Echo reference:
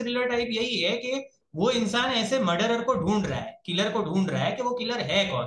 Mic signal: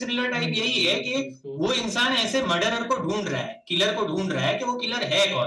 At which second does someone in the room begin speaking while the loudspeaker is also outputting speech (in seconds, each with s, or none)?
0.3 s